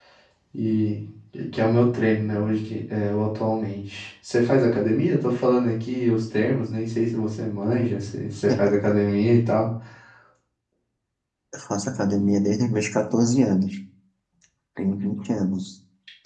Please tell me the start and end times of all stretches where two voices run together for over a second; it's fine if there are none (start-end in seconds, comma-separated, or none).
none